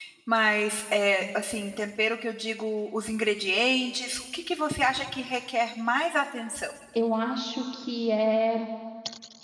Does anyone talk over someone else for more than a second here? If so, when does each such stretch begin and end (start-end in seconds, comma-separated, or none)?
none